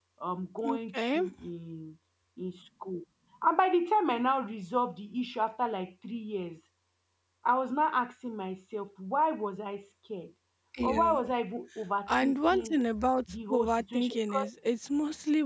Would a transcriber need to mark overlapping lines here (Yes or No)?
Yes